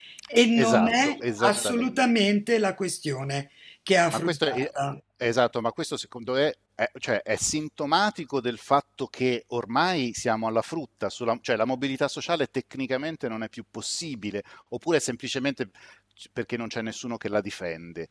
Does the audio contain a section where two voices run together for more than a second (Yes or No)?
Yes